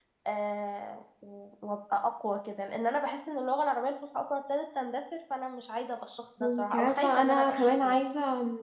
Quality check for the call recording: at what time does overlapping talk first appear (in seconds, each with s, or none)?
6.4 s